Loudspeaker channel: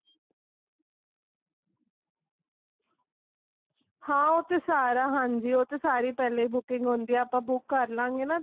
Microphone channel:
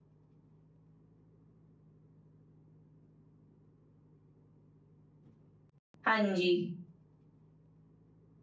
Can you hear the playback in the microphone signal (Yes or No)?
No